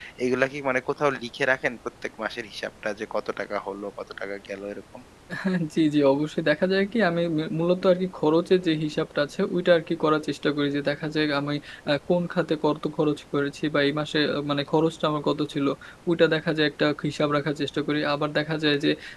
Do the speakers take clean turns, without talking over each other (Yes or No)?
Yes